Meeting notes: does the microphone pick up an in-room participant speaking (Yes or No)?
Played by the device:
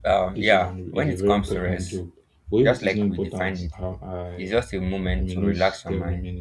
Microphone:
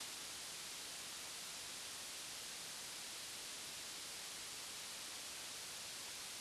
No